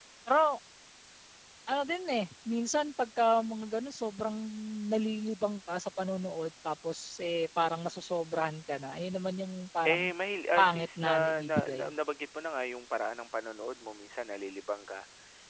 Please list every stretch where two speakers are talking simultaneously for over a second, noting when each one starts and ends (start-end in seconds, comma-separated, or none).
10.6-11.9